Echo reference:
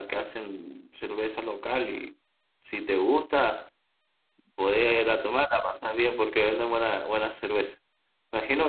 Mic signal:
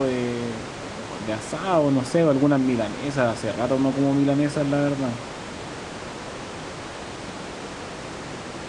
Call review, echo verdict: none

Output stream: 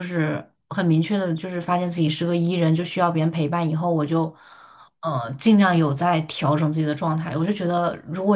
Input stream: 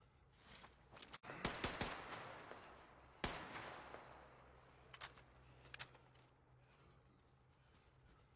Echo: none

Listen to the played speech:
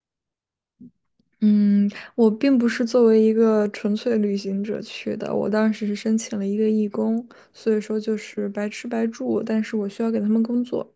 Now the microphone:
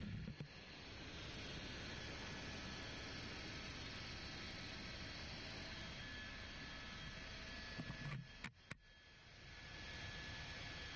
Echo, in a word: none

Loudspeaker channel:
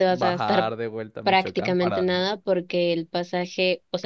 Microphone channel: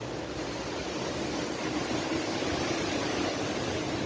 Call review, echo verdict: none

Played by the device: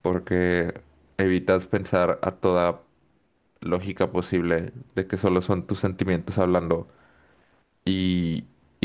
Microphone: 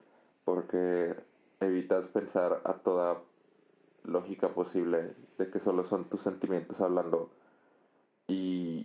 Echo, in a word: present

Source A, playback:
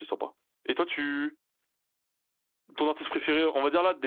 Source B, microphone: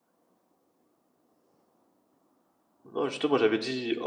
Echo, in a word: none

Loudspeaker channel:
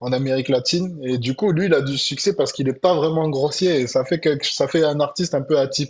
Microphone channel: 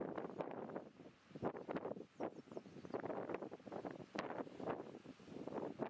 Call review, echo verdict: none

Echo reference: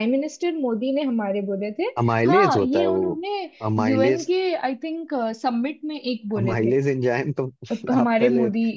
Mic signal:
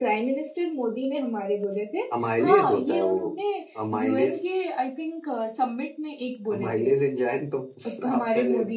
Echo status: present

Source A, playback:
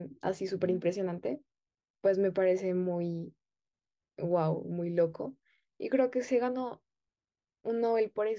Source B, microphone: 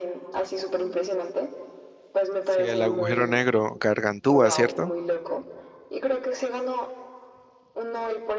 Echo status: present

